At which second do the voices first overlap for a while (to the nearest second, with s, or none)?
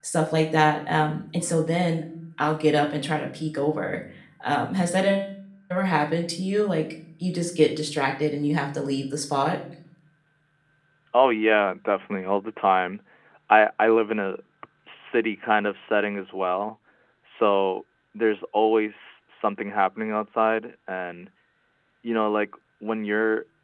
none